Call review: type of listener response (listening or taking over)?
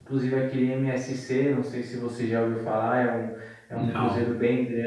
listening